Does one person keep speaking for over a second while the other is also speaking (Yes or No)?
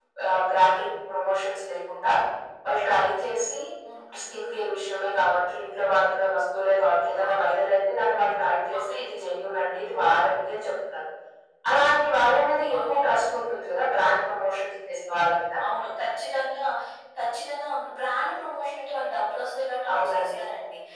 No